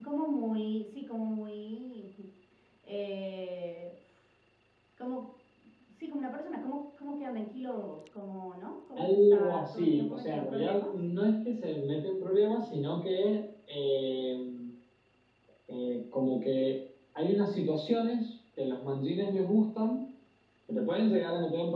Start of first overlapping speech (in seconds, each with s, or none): 9.0 s